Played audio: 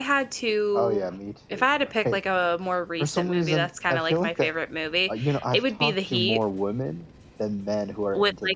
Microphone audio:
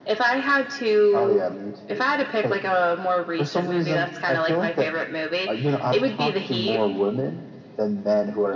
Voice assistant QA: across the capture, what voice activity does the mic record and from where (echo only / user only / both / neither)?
echo only